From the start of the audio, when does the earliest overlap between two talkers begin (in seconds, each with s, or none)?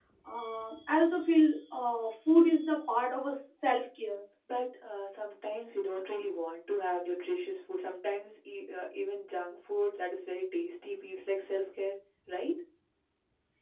none